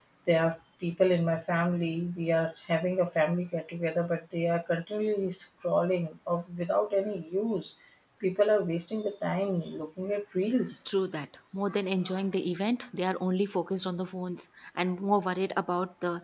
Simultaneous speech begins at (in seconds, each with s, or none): none